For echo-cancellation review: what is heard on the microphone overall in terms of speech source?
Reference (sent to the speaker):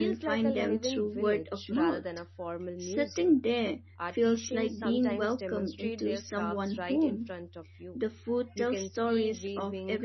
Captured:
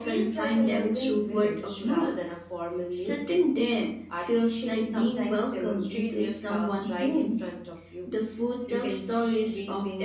echo only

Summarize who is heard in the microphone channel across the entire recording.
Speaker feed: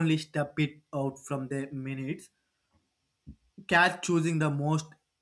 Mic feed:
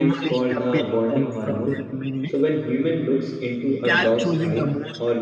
both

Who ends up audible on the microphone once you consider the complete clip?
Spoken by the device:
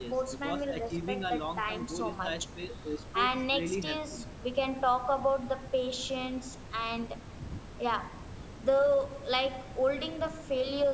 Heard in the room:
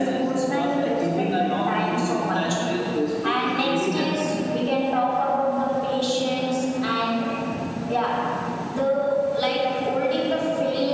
echo only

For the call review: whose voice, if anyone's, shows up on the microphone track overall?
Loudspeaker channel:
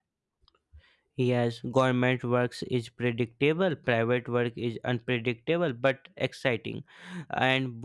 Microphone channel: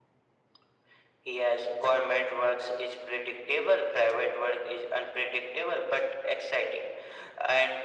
echo only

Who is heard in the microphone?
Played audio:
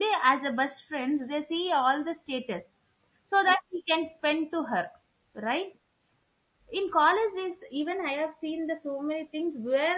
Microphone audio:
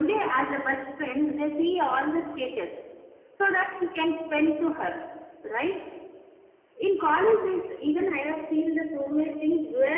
echo only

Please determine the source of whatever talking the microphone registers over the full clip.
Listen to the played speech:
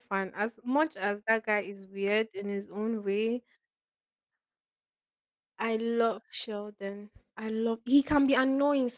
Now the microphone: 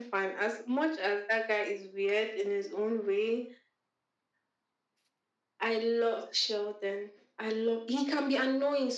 echo only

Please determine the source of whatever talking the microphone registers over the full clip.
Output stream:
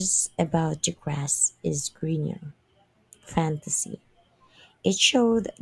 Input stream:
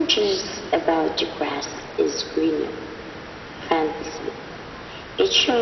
echo only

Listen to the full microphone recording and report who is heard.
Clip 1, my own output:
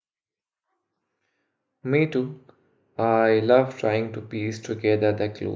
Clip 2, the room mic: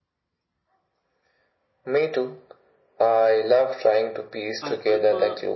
both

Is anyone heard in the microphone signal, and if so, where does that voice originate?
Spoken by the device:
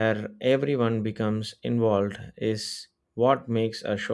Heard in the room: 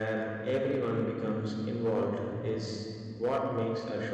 echo only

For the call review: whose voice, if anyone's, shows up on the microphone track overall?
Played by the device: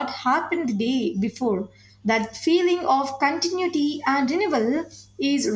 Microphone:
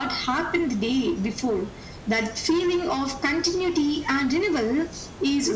echo only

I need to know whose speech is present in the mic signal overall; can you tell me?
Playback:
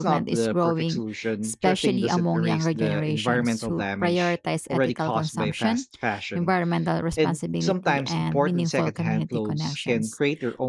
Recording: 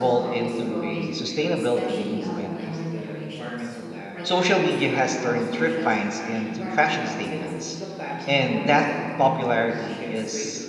both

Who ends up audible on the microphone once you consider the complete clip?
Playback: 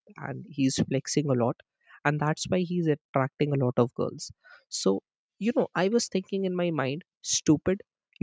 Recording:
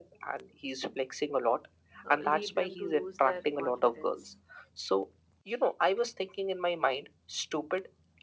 both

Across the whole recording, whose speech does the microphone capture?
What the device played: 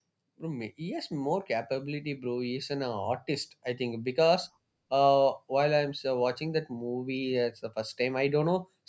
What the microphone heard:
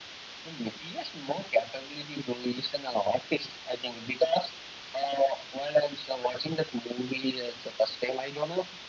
echo only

